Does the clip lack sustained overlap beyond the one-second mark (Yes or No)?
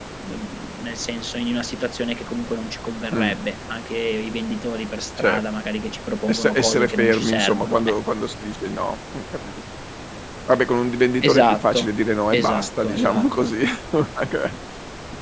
No